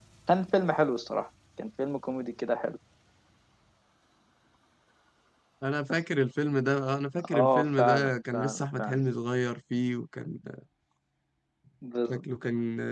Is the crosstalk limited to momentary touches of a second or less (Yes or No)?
No